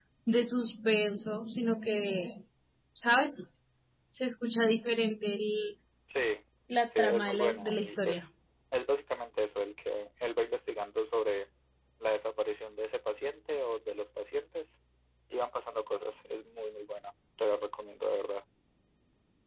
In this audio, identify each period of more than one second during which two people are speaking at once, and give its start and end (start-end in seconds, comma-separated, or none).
6.9-8.2